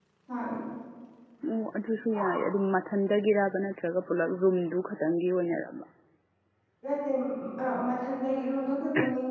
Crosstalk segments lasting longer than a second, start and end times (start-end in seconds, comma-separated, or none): none